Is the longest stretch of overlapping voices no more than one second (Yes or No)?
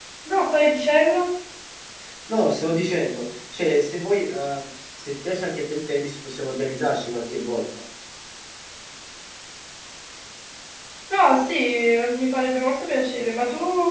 Yes